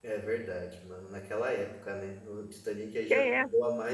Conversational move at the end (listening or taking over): listening